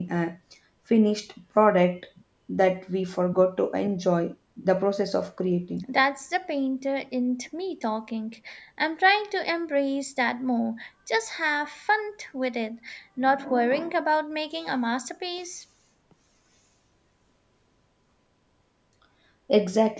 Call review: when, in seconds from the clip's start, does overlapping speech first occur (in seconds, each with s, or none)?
none